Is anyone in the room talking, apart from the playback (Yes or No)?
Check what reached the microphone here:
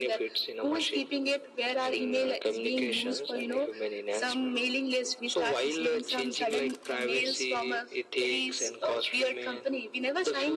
No